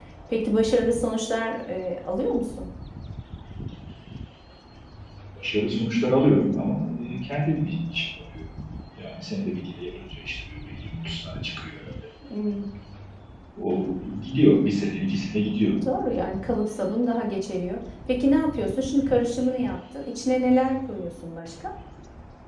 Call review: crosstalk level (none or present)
none